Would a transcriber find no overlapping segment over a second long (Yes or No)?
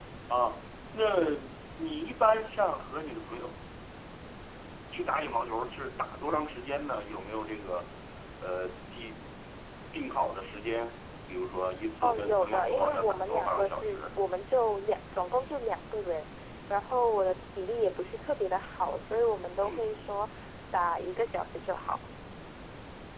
No